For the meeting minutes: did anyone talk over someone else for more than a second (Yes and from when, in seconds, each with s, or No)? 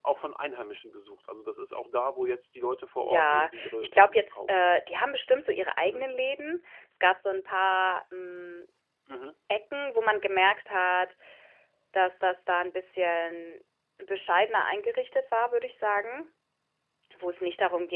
Yes, from 3.0 s